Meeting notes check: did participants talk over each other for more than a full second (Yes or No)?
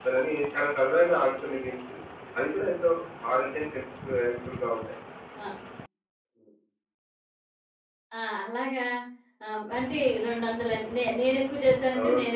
No